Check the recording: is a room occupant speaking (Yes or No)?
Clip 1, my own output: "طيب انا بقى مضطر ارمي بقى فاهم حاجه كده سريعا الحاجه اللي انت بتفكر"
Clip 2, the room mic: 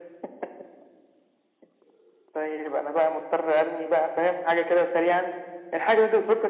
No